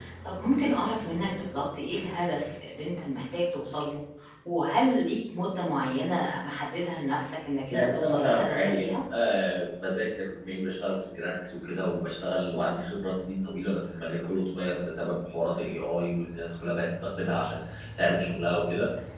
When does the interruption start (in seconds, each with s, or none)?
7.7 s